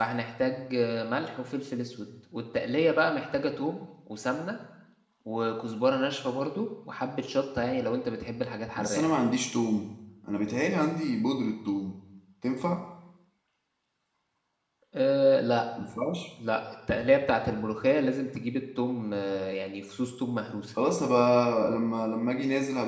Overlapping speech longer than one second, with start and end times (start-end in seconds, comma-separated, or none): none